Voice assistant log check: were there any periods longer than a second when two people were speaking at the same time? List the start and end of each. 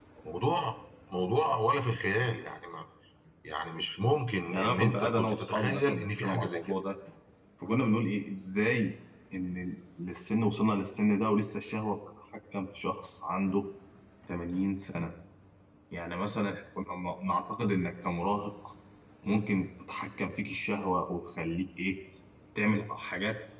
4.5-6.8

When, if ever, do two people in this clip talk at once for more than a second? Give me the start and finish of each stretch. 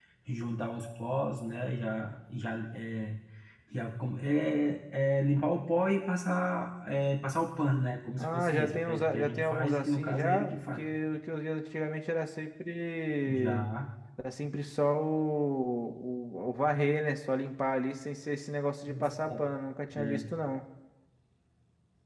8.2-10.8

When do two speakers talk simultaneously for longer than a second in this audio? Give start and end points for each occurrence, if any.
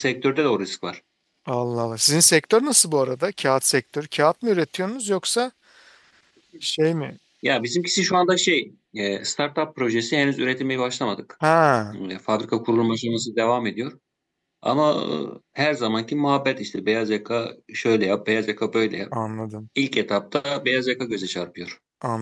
none

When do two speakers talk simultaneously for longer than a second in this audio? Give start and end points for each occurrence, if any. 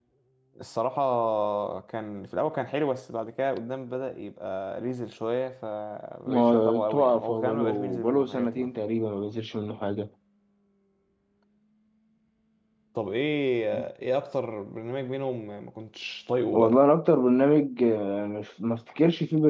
6.3-8.7

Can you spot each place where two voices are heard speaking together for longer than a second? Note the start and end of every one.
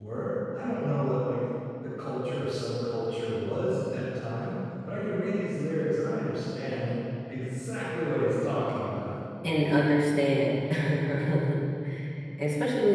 none

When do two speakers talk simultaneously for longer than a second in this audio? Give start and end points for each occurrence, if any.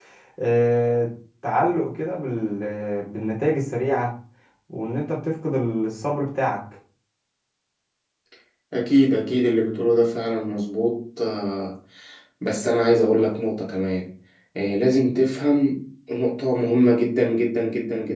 none

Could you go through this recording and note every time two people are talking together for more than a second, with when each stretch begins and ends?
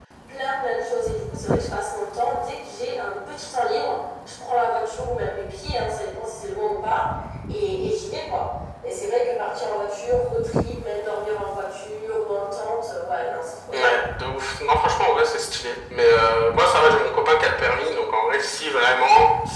none

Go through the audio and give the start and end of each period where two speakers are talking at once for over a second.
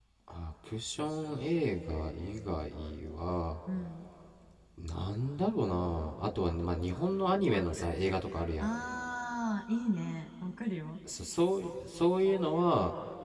none

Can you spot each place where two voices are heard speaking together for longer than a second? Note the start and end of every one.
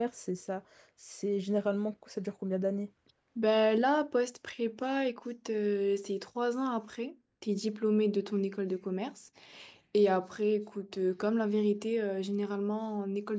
none

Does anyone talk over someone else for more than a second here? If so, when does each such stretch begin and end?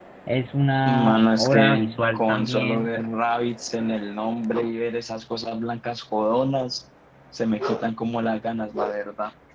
0.8-2.9

